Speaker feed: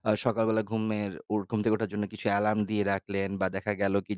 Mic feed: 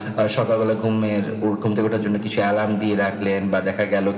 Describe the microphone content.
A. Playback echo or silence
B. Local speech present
A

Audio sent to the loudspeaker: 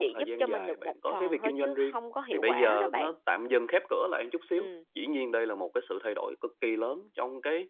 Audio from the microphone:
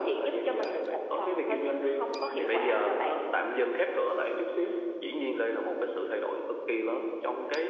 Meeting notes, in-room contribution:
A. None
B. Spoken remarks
A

